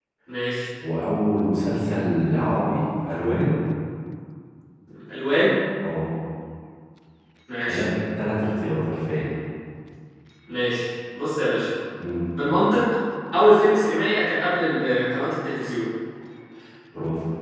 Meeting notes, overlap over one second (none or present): none